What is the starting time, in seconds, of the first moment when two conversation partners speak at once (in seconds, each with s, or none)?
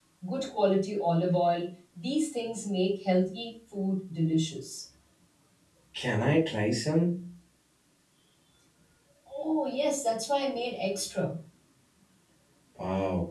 none